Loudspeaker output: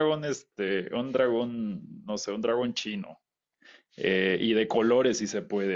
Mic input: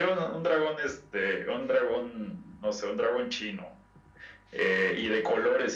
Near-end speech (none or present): none